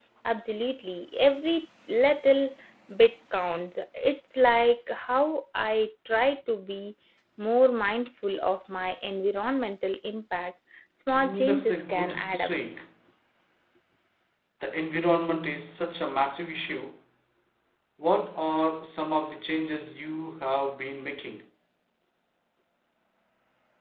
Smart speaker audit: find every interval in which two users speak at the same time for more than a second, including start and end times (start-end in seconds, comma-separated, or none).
11.2-12.5